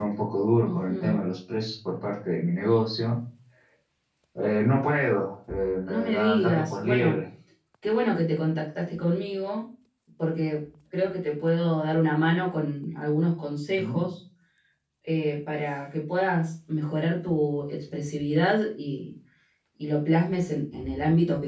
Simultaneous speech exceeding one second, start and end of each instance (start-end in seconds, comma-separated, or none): 5.9-7.2